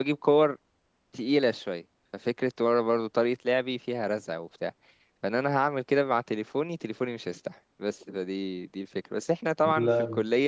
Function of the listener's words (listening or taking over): listening